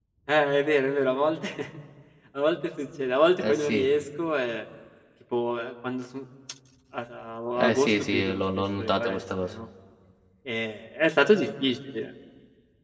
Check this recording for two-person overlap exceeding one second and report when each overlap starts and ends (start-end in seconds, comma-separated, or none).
7.6-9.5